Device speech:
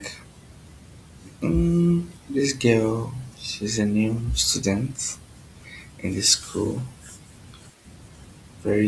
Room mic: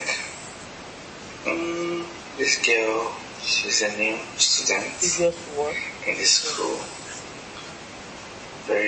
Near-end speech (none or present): present